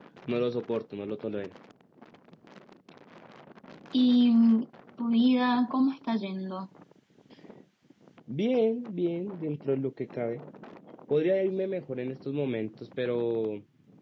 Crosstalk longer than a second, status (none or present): none